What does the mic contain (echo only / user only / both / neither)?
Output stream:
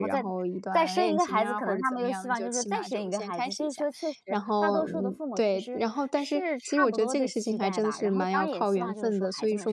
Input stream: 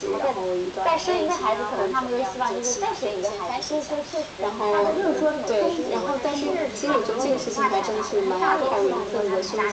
both